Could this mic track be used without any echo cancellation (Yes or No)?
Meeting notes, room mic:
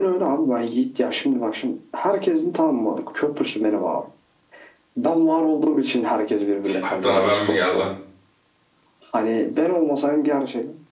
No